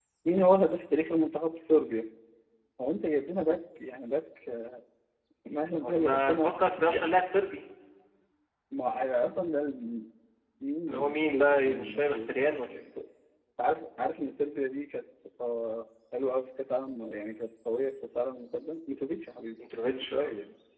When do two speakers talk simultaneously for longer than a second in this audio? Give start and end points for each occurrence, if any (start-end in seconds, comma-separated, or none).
5.8-7.1, 10.9-12.2